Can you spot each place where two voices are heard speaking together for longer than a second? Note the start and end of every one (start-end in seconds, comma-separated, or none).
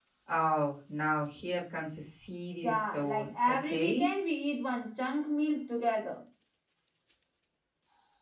2.6-4.1